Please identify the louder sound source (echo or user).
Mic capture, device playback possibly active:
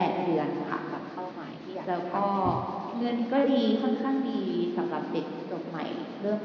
echo